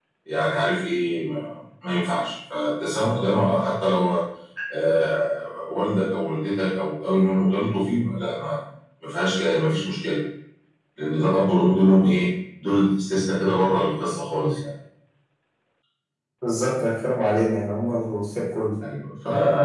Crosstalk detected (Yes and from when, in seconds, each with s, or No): No